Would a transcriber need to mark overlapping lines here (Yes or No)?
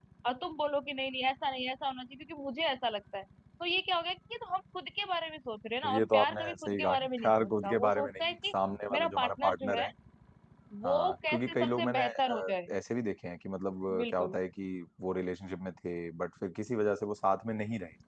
Yes